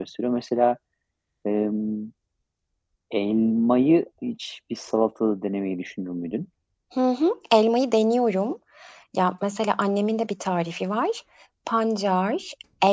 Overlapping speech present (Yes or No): No